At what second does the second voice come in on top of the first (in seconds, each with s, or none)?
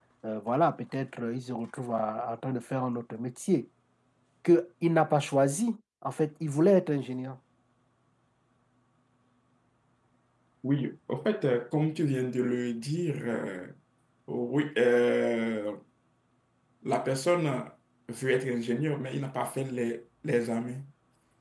none